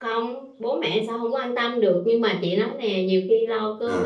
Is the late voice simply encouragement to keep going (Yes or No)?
Yes